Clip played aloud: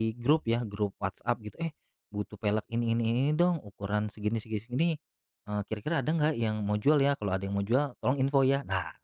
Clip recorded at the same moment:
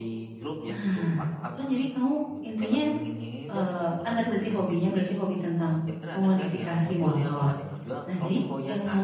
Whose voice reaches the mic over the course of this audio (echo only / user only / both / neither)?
both